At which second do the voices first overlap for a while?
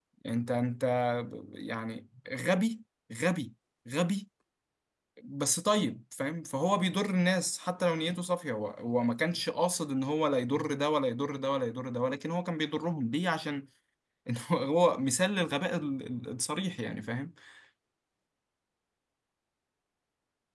none

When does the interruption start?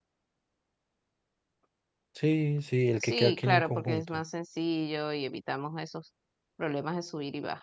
3 s

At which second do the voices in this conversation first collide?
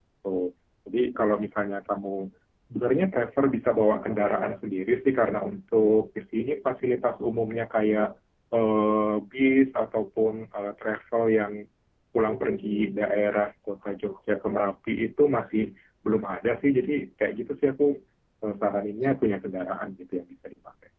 none

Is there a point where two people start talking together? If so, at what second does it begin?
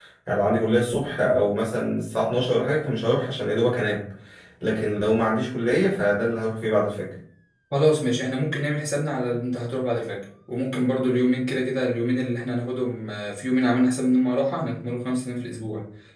none

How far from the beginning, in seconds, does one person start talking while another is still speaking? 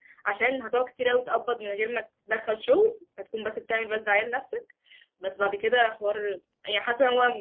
none

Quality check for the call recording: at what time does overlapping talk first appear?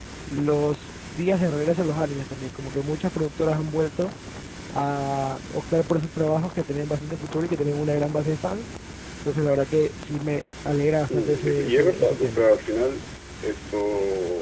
11 s

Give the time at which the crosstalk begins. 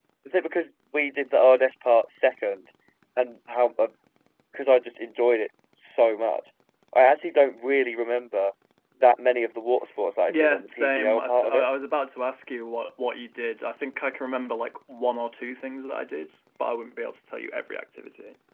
10 s

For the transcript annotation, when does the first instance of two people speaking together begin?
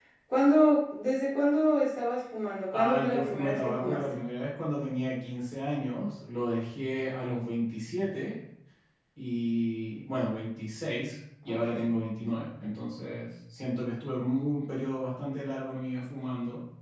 3 s

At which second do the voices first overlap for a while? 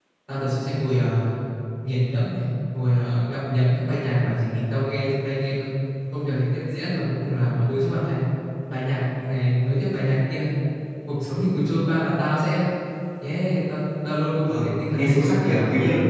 14 s

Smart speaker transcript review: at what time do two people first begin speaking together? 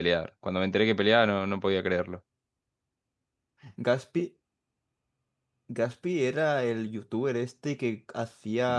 none

